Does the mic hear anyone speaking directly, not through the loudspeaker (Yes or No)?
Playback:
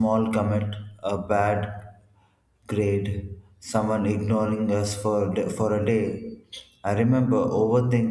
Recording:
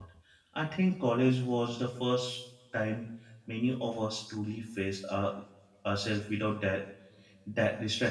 Yes